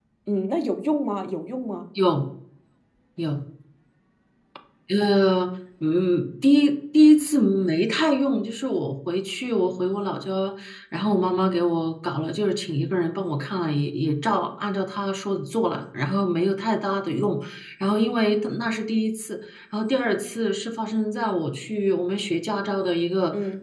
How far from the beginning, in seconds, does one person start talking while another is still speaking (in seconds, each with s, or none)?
none